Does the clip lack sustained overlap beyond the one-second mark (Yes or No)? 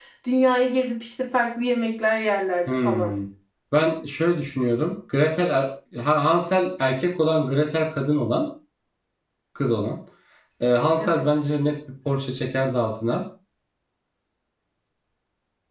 Yes